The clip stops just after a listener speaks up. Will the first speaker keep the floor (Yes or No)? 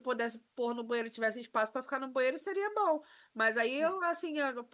Yes